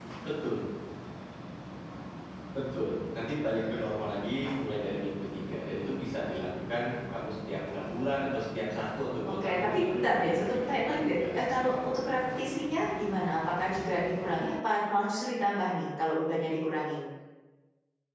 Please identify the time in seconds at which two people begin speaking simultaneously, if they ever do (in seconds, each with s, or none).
9.4 s